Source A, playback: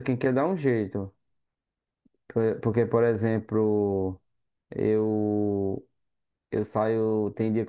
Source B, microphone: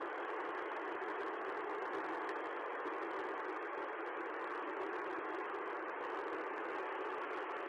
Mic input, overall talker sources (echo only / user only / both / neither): neither